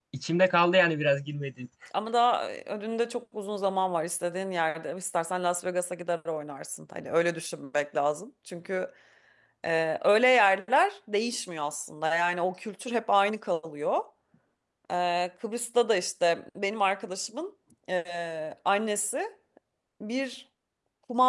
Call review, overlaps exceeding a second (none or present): none